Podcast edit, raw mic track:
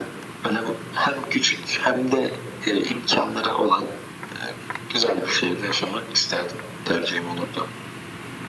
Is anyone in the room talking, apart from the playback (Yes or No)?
No